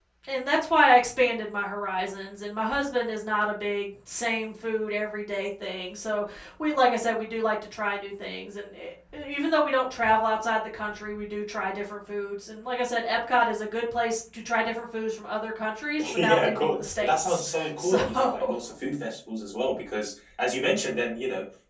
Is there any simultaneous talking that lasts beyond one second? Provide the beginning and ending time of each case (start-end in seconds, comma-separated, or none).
16.1-18.5